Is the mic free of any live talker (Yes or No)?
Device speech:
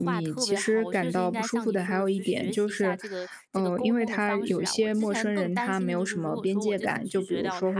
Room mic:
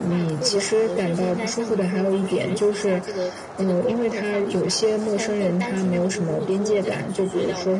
Yes